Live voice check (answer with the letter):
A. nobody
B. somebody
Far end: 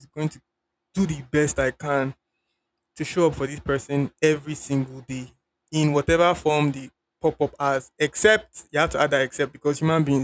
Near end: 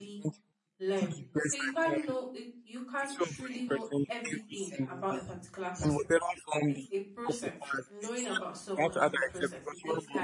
B